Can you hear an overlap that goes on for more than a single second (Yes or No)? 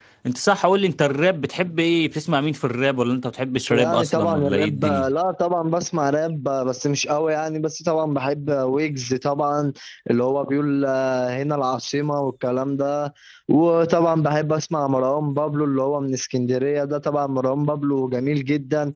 Yes